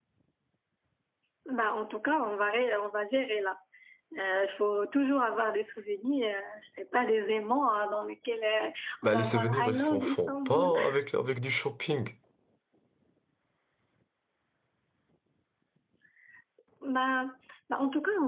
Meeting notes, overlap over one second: present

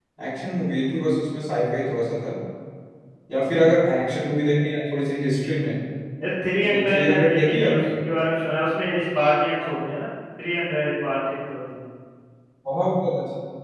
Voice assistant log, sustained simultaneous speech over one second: present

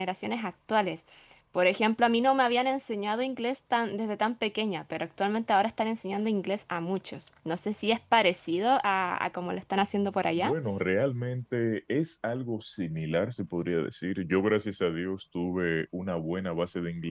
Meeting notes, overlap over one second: none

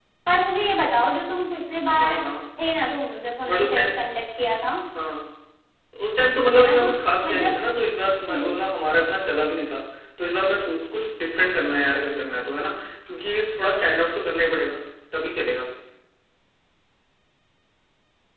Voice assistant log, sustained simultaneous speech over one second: none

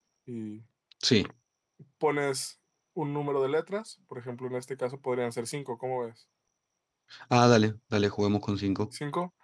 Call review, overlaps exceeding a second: none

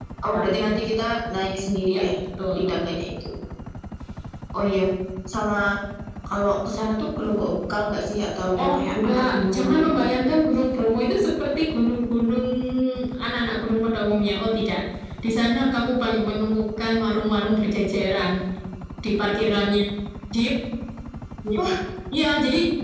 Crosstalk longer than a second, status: present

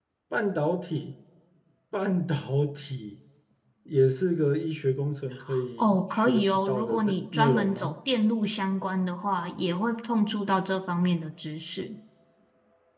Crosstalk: present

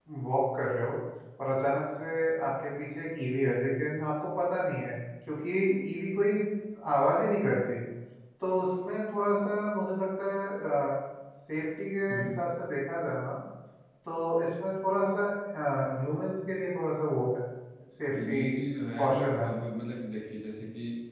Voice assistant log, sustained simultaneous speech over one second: none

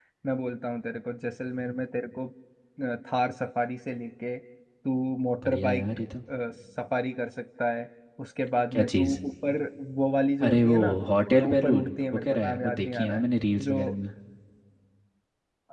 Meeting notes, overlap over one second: present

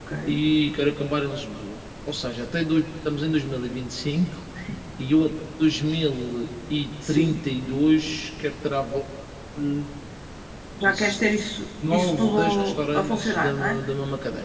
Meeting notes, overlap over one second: present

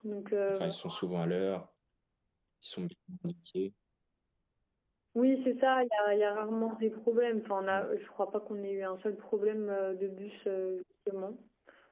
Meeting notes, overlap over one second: none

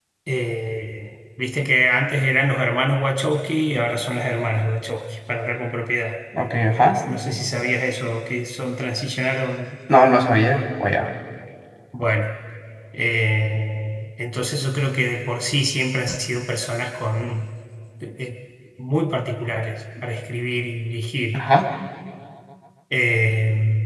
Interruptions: none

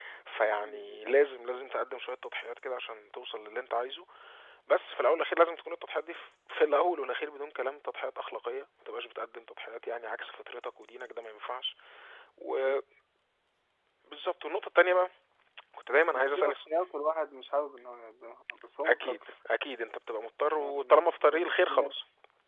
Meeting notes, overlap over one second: present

